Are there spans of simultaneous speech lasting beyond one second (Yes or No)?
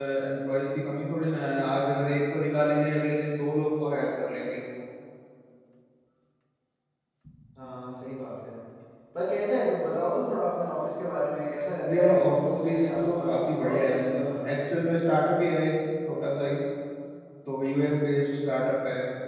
Yes